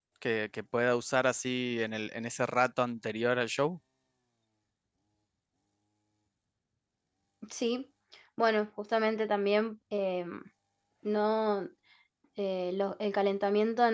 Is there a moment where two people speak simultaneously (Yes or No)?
No